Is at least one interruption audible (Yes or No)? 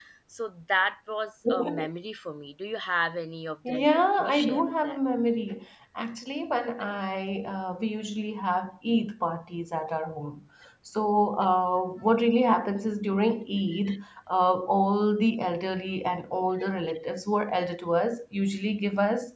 Yes